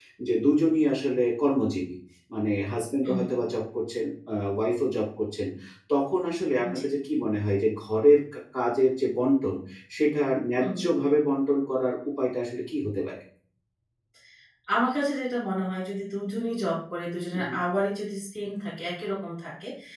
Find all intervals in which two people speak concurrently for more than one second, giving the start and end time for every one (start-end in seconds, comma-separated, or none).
none